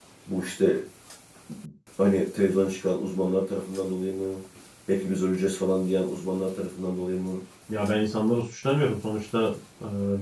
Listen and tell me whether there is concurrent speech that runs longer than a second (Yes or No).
No